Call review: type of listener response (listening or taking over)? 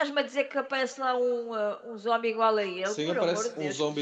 taking over